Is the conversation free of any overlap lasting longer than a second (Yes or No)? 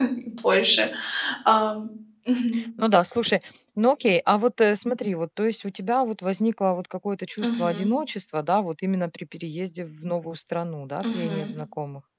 Yes